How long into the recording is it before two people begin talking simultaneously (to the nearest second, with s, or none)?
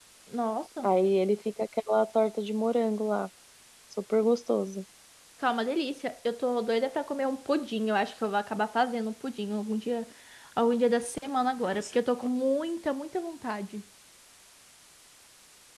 none